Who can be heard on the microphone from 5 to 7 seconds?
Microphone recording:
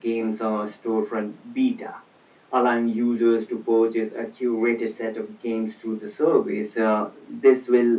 echo only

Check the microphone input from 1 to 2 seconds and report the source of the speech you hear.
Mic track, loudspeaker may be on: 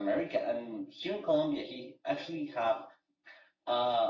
echo only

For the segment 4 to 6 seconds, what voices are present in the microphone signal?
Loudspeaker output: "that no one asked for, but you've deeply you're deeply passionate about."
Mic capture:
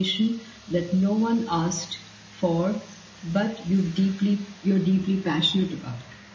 echo only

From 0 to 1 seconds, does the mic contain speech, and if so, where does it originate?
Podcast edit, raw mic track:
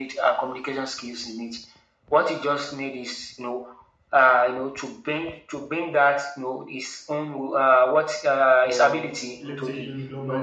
echo only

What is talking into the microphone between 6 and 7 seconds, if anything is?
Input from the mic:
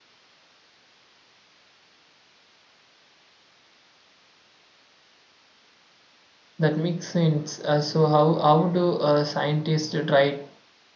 user only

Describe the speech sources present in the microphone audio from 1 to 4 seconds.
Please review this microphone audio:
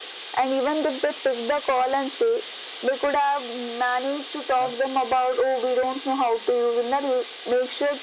echo only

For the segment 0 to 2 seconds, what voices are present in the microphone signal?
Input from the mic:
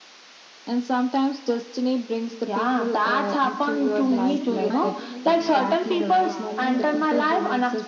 echo only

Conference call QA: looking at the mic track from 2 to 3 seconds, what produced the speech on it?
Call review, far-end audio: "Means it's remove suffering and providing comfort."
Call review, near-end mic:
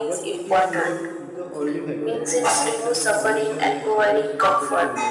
both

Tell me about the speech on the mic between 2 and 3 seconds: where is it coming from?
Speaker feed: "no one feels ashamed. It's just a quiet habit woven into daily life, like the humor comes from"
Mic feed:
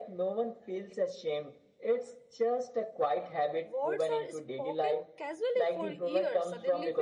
echo only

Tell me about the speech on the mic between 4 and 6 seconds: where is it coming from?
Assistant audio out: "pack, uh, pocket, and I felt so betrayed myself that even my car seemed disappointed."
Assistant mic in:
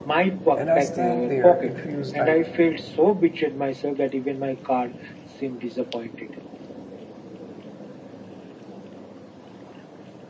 echo only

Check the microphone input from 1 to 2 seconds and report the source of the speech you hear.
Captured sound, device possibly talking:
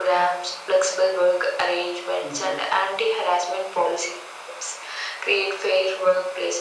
echo only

